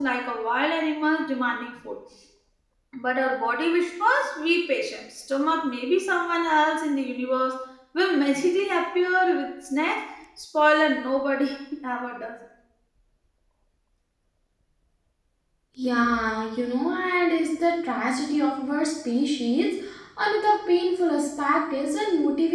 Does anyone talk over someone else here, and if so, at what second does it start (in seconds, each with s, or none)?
none